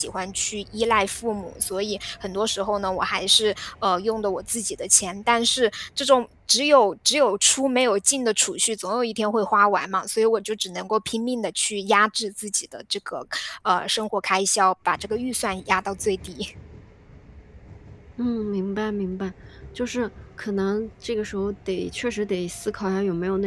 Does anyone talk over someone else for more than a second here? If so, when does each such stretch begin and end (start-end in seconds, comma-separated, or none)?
none